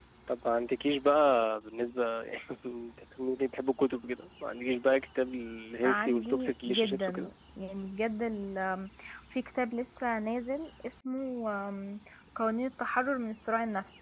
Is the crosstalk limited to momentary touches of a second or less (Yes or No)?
No